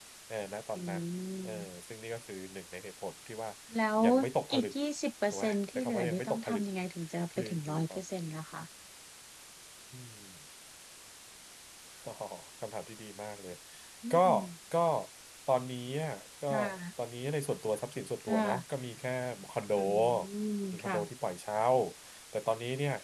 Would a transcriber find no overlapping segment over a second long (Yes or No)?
No